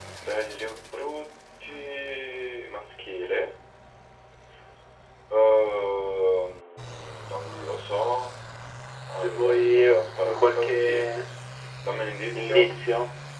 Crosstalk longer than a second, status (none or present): present